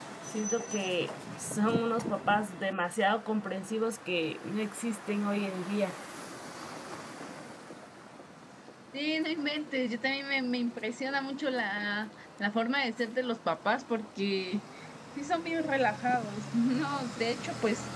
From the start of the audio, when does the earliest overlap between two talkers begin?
none

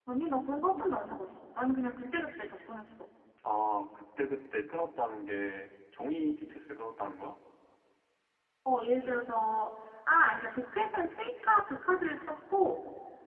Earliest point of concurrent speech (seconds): none

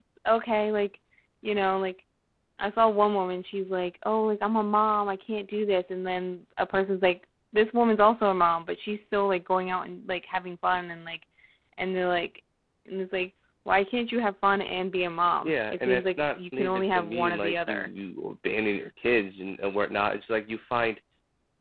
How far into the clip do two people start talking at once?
15 s

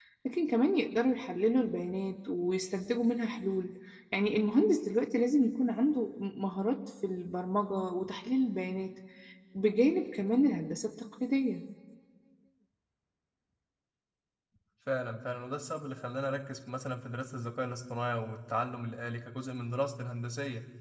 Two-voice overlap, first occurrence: none

